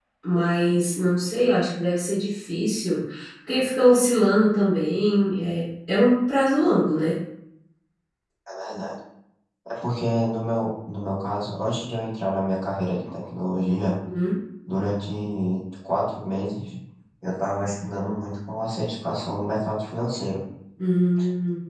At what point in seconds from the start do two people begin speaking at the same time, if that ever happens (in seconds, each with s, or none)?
none